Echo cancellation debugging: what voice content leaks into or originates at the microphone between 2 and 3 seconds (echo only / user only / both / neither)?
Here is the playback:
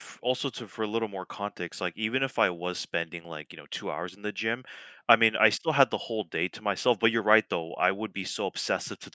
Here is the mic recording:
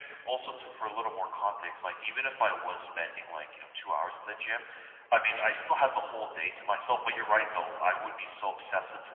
echo only